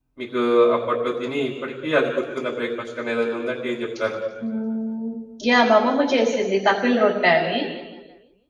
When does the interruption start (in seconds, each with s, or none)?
none